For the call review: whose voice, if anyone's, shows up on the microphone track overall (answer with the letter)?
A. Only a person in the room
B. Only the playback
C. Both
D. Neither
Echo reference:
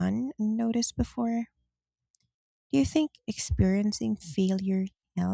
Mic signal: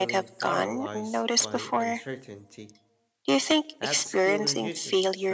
C